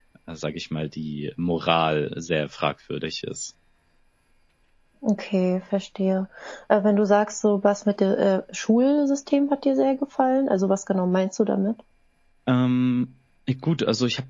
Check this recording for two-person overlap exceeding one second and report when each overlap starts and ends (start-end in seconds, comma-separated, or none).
none